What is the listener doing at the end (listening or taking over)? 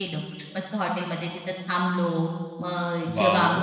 listening